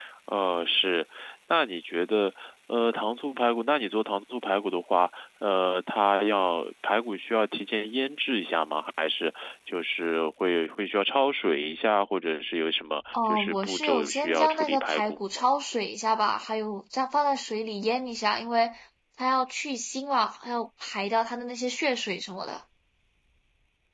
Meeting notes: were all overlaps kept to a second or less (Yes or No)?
No